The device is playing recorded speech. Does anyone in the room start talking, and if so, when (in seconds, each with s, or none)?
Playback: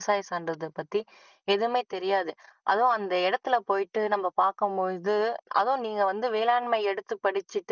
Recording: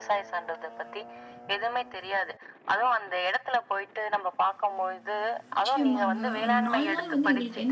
5.5 s